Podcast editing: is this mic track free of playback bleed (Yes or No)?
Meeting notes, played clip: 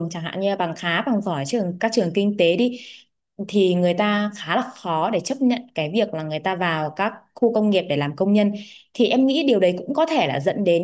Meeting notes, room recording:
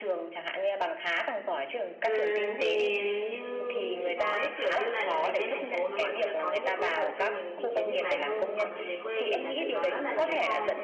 No